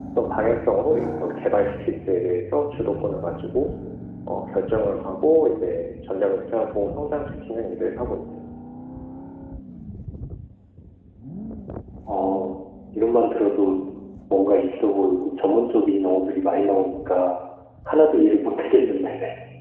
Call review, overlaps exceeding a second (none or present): none